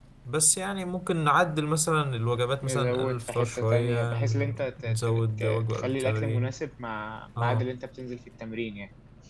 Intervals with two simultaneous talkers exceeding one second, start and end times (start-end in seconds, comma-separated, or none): 2.6-6.5